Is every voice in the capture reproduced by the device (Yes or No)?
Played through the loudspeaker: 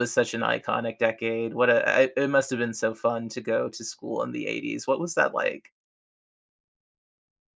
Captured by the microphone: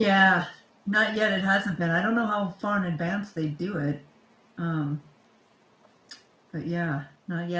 No